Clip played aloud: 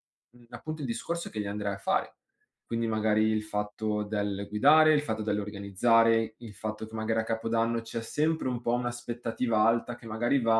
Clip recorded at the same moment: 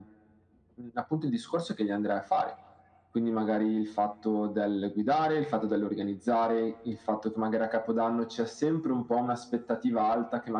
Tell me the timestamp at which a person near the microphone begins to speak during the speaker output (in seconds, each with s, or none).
none